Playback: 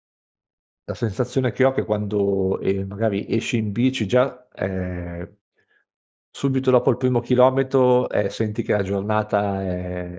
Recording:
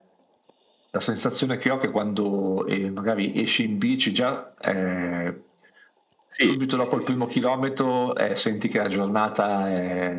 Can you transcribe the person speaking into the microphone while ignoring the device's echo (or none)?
Sì, sì, sì, sì.